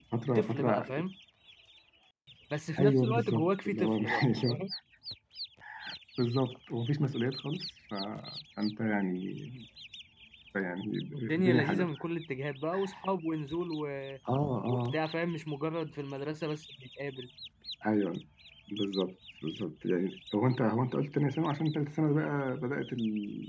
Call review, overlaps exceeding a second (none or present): present